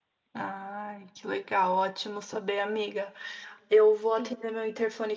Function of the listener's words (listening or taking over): listening